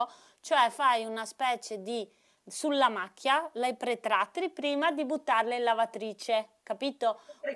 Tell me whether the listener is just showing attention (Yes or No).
Yes